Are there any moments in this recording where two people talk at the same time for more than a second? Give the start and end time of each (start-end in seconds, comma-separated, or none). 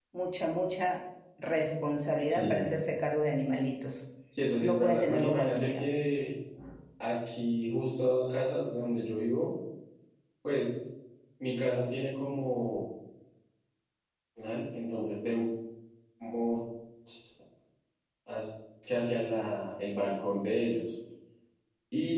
4.6-5.8